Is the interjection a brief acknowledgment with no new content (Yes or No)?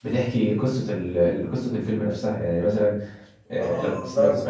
No